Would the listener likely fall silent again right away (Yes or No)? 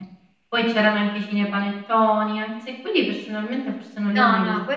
No